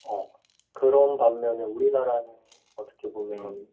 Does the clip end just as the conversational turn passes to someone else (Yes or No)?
No